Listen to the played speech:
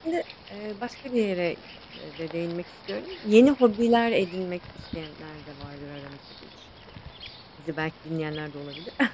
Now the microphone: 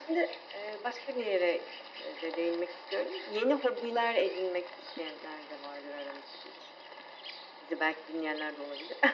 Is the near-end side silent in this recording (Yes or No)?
Yes